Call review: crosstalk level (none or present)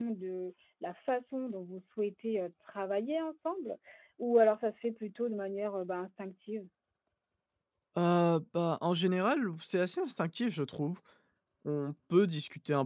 none